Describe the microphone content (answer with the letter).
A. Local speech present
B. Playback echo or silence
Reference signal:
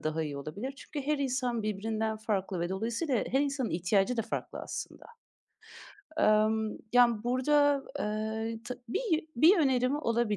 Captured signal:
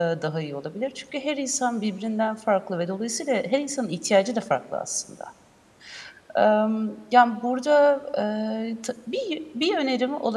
B